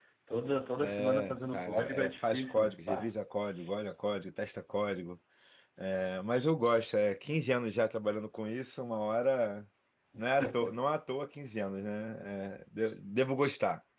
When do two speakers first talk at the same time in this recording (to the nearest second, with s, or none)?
1 s